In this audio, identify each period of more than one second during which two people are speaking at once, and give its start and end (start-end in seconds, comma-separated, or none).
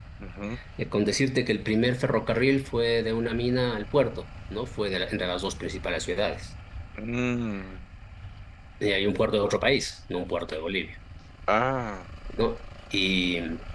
none